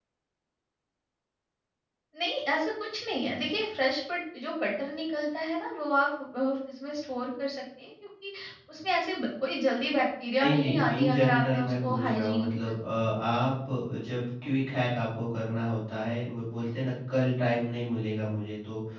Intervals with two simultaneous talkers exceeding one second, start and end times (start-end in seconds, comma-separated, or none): 10.4-12.5